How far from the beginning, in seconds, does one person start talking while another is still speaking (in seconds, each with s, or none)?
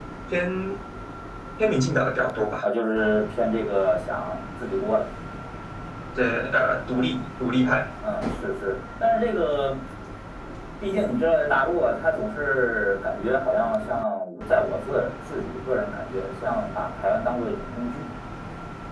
none